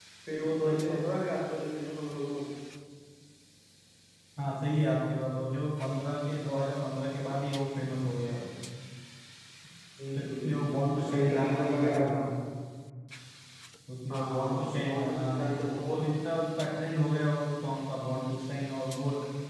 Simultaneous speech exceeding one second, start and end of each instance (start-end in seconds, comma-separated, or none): 10.2-12.3, 14.1-16.0